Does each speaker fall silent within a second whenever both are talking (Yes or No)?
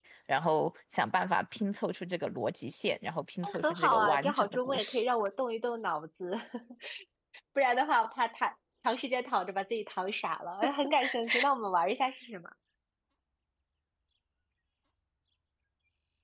No